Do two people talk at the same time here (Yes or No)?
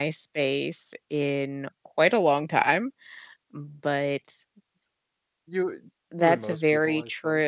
Yes